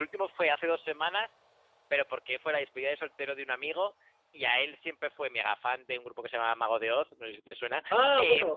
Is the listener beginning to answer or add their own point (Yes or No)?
Yes